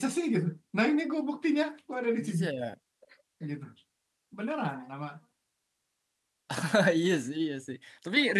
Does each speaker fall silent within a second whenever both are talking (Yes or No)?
Yes